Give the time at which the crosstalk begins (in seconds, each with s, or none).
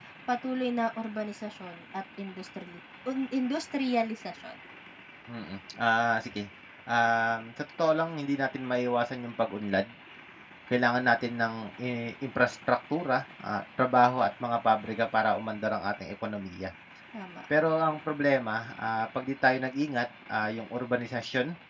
none